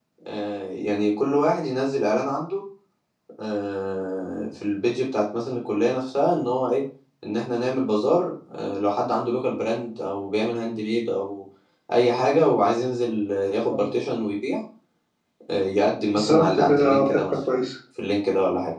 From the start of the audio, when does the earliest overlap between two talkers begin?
16 s

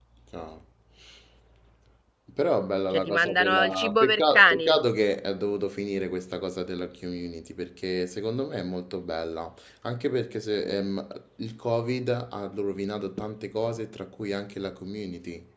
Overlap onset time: 3 s

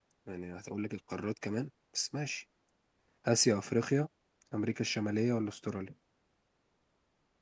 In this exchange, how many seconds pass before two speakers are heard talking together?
none

